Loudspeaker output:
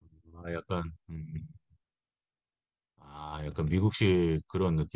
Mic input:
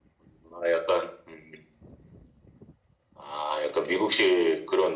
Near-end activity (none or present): none